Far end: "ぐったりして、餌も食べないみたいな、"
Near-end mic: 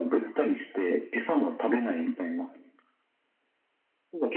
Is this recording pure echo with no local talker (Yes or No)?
Yes